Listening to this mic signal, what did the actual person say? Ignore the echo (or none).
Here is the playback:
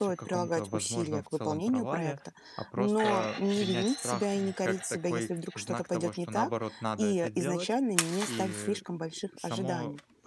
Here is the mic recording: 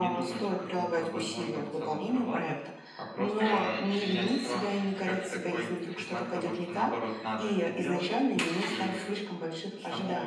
none